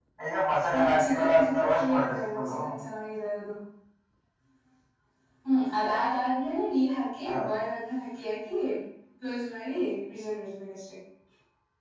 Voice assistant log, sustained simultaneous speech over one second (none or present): present